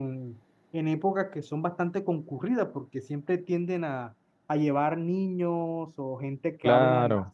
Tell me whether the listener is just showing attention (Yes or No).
Yes